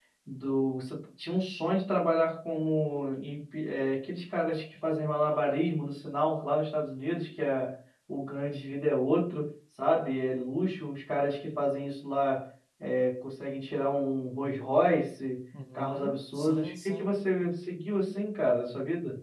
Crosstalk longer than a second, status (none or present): present